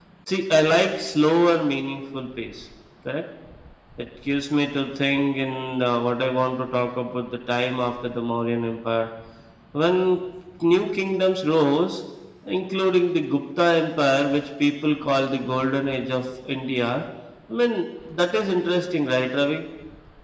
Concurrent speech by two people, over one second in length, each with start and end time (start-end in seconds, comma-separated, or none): none